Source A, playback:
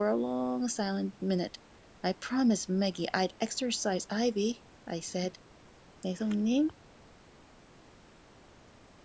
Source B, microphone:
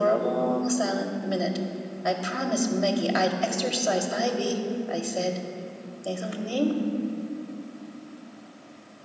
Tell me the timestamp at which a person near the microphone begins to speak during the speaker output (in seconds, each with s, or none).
none